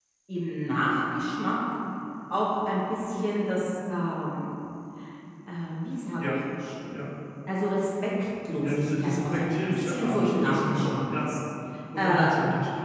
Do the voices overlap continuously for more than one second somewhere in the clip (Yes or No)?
Yes